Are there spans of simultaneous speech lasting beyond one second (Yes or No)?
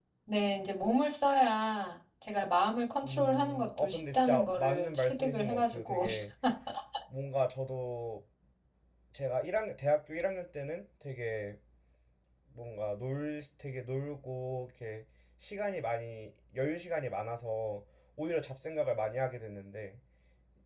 Yes